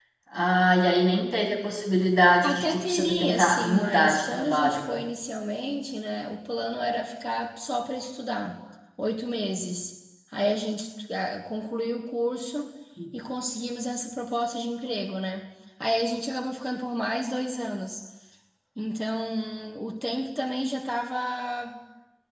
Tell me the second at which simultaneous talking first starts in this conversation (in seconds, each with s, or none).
2.4 s